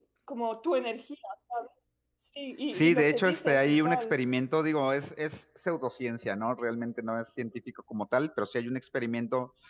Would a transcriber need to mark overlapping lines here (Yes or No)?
Yes